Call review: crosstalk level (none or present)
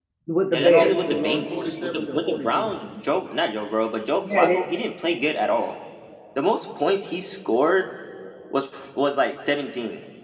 present